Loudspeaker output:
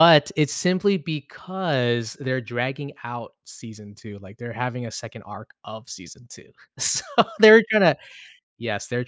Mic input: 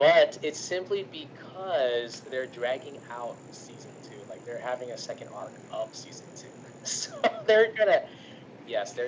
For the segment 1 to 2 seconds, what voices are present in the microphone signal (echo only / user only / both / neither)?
echo only